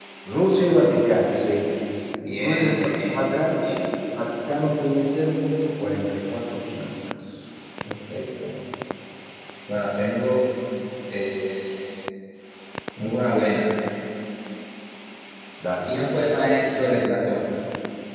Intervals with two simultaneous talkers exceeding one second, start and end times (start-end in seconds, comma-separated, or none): 2.4-3.8